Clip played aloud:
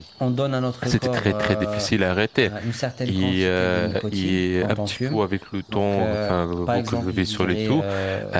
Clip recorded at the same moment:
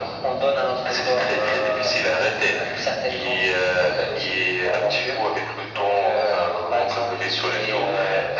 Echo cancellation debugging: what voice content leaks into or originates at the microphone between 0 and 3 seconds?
echo only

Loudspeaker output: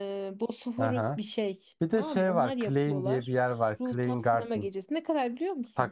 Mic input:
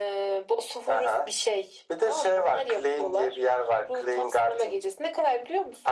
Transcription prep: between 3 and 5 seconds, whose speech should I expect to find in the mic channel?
echo only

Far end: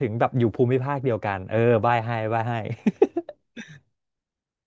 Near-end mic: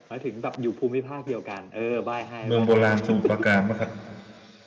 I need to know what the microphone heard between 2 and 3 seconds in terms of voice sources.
both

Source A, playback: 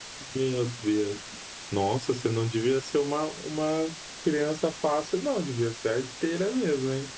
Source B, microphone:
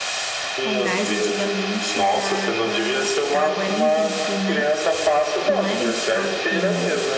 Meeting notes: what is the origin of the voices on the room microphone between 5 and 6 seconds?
both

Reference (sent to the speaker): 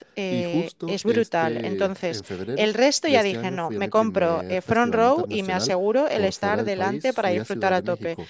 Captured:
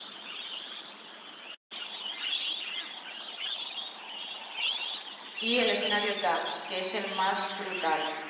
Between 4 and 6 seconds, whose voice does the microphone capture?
user only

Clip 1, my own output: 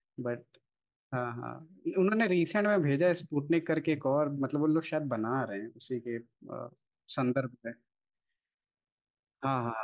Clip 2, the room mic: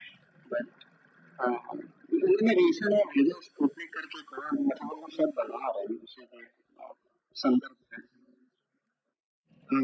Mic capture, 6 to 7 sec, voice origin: echo only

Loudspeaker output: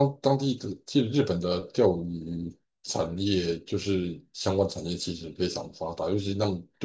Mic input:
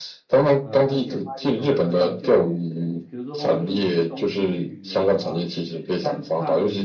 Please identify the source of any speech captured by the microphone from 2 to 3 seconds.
both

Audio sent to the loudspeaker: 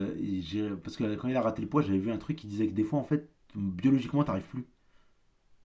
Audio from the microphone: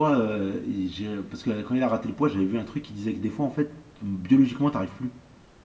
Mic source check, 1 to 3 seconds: echo only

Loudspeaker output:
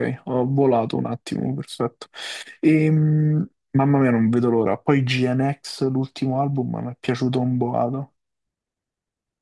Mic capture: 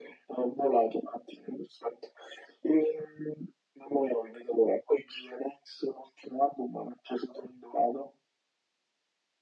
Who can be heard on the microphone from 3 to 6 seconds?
echo only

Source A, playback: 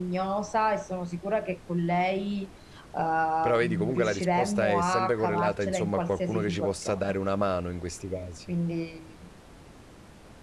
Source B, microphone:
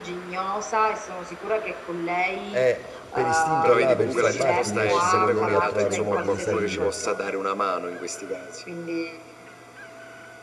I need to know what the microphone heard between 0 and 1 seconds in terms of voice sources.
echo only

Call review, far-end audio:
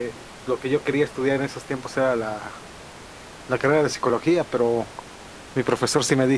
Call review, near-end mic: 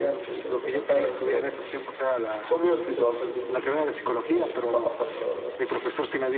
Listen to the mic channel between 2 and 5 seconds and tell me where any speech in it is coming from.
both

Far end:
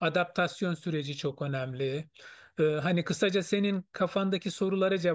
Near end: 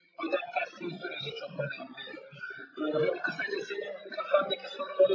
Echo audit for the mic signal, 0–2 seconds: echo only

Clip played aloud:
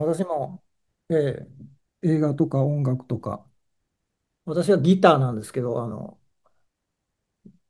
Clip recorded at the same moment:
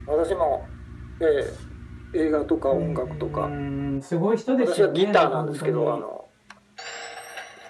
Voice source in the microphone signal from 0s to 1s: echo only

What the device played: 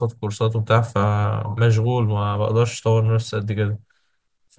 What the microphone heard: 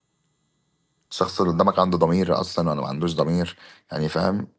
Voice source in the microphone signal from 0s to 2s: user only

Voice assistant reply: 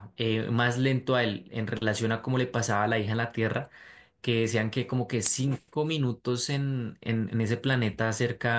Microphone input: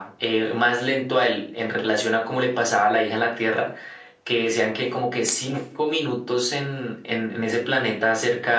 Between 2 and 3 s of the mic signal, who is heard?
echo only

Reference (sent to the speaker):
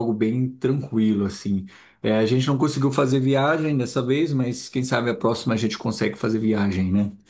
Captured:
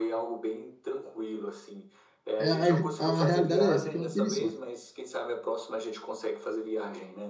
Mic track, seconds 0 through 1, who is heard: echo only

